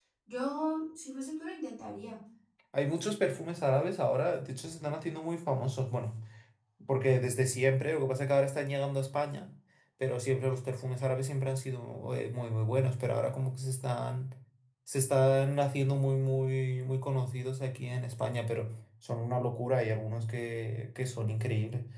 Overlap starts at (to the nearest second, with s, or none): none